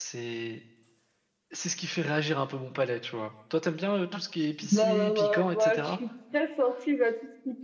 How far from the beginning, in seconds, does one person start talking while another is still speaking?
4.6 s

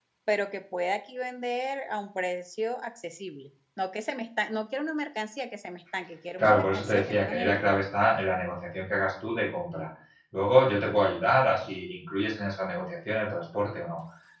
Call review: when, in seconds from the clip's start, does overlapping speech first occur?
6.4 s

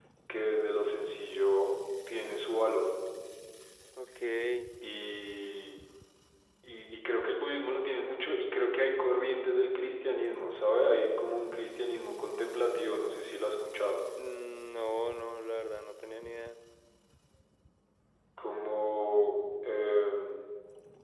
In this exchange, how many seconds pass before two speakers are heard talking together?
none

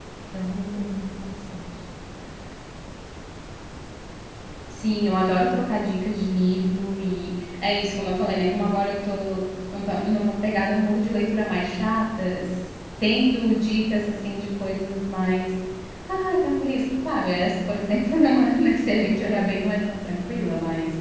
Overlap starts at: none

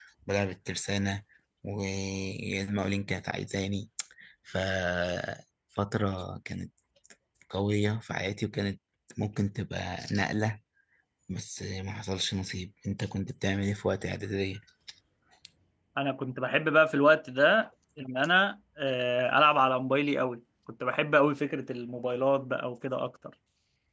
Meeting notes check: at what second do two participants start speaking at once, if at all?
none

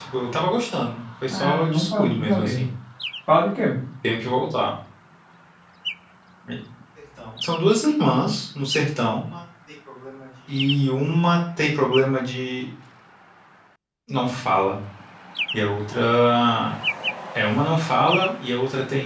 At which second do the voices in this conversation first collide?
1.3 s

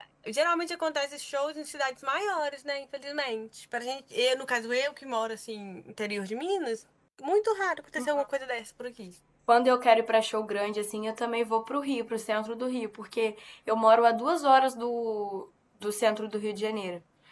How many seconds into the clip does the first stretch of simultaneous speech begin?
none

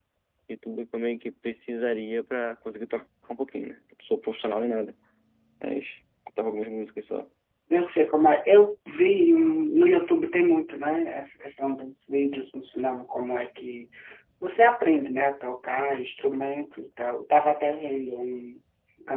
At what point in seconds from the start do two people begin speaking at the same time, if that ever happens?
none

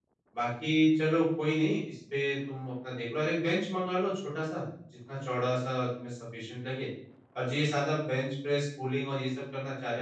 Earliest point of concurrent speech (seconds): none

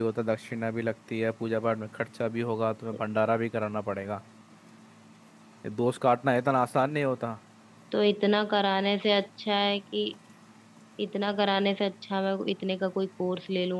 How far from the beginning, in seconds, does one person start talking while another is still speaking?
none

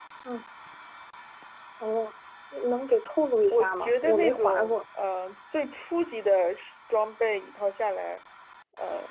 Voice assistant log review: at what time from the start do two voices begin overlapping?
3.5 s

